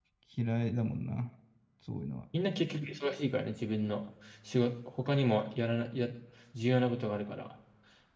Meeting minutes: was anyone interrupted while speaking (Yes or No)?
No